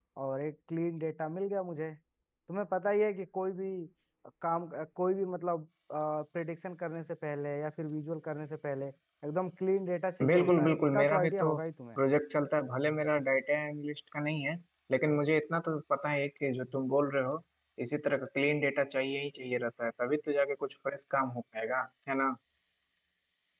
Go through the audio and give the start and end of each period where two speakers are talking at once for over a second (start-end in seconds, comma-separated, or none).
10.2-11.5